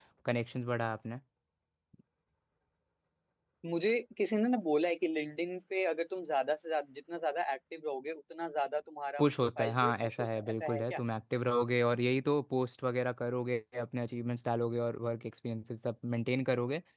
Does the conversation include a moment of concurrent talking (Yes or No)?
Yes